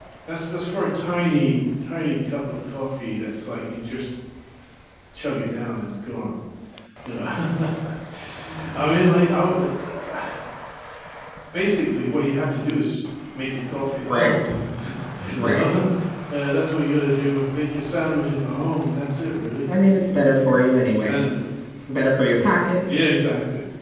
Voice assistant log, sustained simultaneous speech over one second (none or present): none